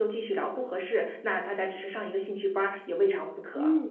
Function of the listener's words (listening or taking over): taking over